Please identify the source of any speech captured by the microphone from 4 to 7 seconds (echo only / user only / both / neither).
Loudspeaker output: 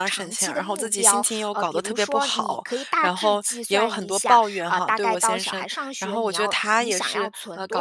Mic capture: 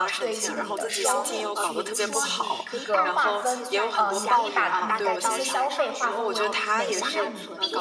both